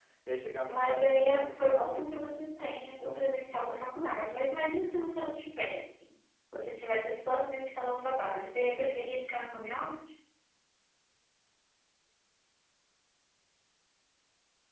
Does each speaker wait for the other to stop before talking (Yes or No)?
No